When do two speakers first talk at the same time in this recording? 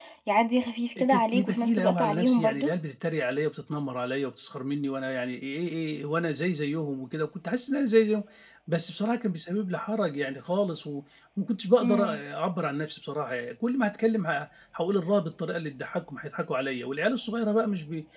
1.0 s

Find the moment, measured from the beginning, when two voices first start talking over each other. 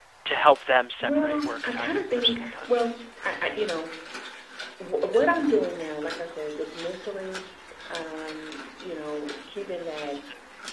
1.0 s

